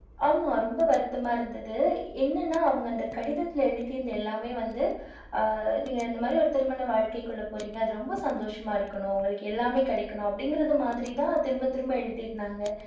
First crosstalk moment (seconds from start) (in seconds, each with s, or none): none